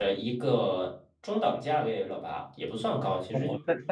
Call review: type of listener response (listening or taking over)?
taking over